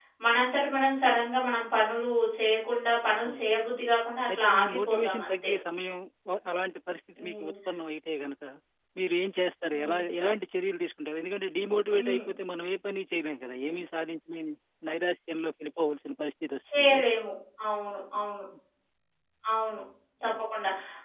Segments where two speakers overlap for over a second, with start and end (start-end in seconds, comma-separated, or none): 4.3-5.5